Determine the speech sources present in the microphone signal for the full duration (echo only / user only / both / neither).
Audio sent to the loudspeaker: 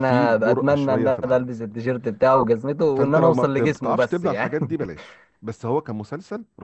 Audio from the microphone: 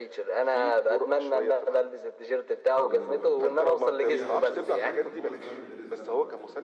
both